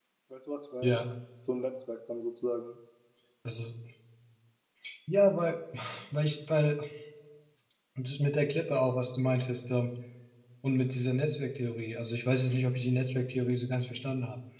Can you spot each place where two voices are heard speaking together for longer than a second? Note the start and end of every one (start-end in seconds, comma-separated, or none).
none